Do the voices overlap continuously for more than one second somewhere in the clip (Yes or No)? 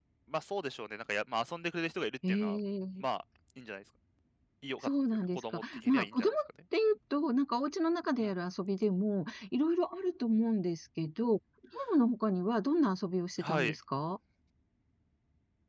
Yes